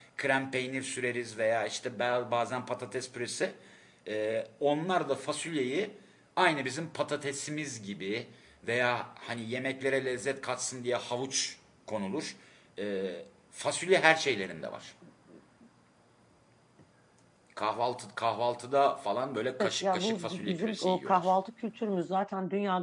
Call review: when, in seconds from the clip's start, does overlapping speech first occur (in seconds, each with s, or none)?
19.6 s